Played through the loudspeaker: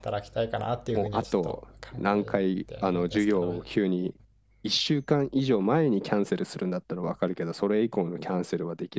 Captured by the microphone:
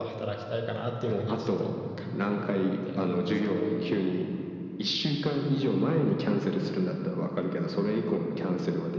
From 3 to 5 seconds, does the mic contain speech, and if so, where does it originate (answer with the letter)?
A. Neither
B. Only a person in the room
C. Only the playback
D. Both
C